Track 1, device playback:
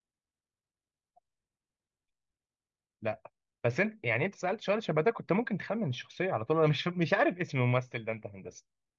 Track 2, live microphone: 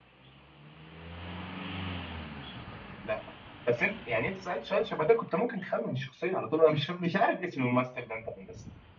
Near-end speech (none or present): none